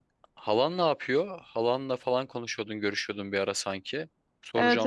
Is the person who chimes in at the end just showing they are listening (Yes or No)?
No